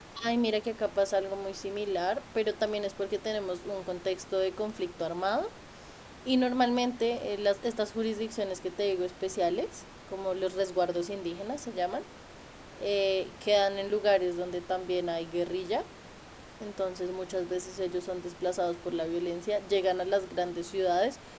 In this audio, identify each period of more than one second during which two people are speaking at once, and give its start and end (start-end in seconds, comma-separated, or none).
none